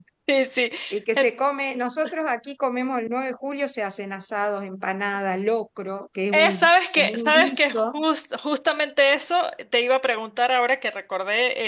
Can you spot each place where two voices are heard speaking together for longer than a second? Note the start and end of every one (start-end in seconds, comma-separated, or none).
6.3-8.0